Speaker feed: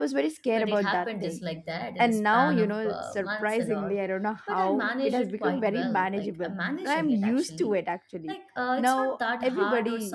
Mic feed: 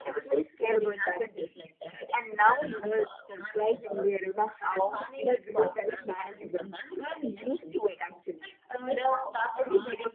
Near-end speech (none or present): none